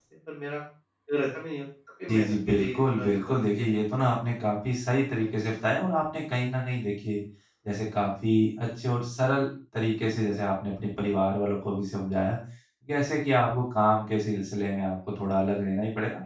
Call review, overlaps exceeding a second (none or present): present